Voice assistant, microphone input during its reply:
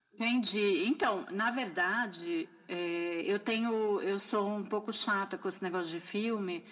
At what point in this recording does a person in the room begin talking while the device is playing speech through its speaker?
none

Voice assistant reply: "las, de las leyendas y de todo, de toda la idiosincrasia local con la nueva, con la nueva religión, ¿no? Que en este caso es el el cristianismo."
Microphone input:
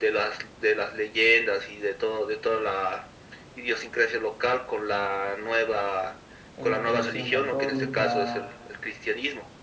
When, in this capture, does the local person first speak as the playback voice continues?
6.6 s

